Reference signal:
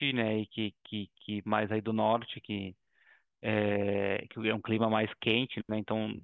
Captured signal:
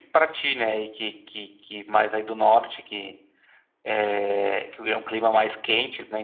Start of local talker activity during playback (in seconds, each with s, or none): none